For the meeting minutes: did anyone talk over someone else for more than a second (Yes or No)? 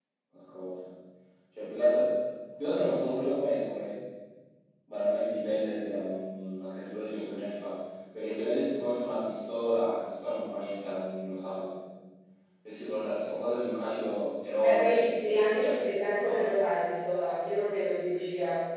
Yes